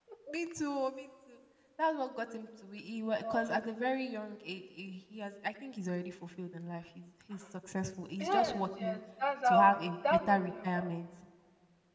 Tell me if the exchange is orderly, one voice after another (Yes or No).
No